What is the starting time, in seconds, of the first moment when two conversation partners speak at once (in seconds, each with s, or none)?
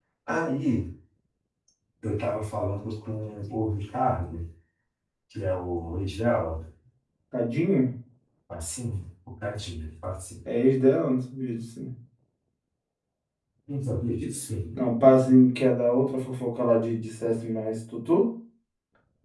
none